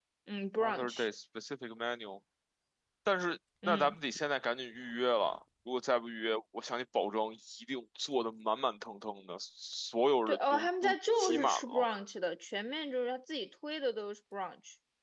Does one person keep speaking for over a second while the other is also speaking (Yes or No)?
Yes